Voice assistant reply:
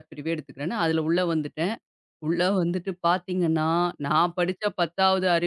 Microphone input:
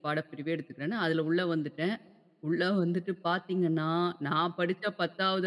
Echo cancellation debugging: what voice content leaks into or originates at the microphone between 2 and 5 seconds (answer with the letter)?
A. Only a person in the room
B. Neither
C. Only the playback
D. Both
C